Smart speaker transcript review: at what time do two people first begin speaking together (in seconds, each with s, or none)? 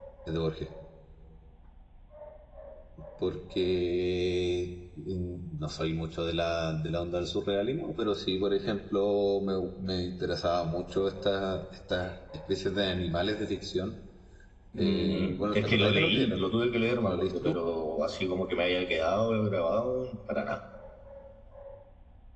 14.8 s